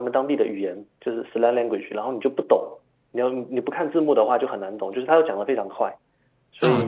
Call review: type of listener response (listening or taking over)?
taking over